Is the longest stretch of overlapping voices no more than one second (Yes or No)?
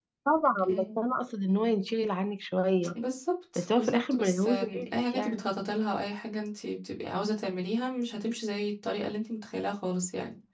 No